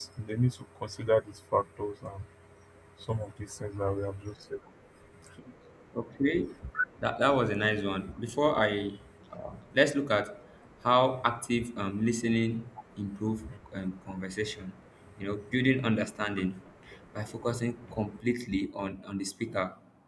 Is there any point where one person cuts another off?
No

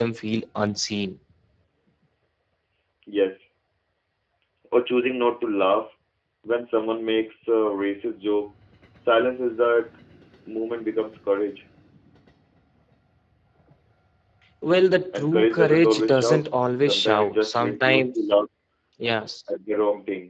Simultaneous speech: Yes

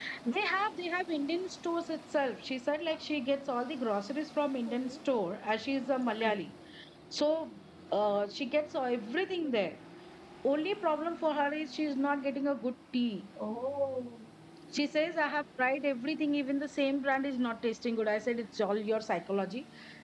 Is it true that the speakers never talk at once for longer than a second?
Yes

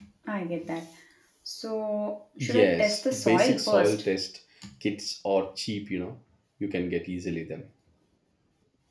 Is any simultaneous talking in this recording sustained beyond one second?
Yes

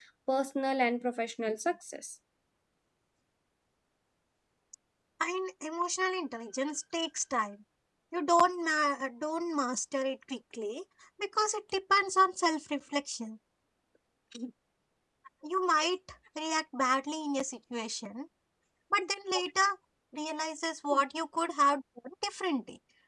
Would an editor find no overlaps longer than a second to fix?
Yes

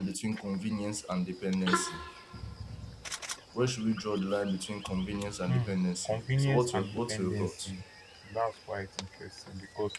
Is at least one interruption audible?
Yes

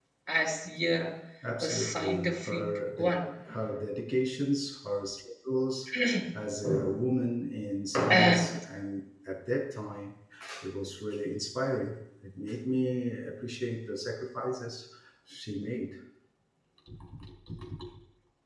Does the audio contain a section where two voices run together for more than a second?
Yes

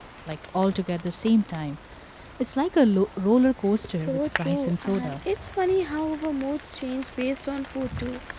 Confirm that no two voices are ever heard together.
No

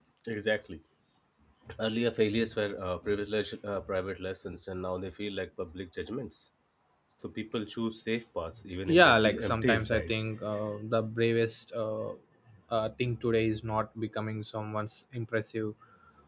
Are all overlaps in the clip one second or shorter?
No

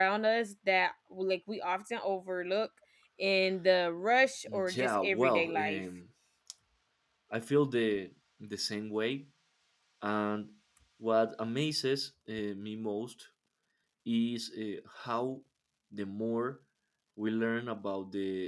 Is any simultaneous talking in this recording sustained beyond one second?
Yes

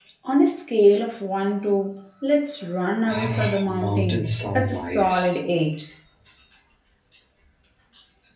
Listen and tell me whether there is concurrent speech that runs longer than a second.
Yes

